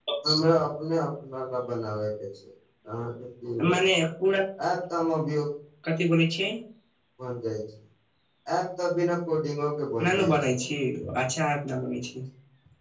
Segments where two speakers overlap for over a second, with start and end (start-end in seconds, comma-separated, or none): none